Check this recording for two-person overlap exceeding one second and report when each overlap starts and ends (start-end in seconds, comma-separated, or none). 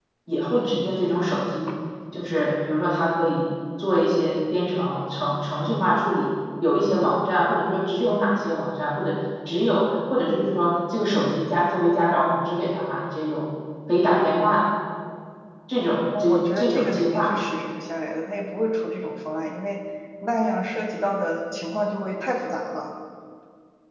16.2-17.4